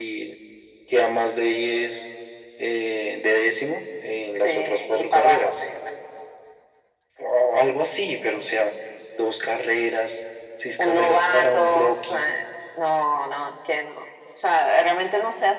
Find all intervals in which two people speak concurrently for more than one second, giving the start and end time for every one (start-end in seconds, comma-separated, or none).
4.4-5.6, 10.8-12.2